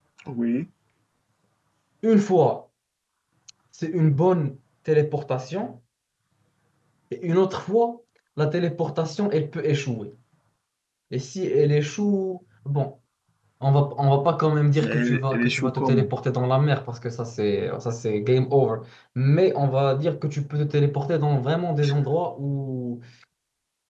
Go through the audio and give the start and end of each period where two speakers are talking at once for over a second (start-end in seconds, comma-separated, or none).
14.8-16.1